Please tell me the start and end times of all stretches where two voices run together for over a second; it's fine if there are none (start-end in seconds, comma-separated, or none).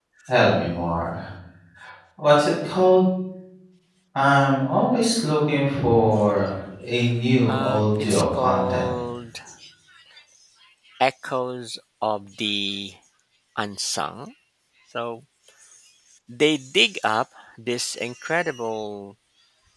7.5-8.9